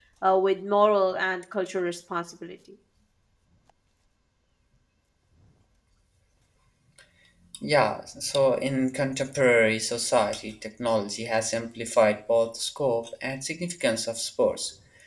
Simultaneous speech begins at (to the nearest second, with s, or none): none